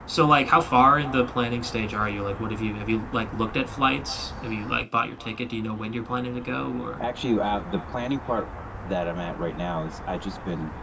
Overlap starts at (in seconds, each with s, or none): none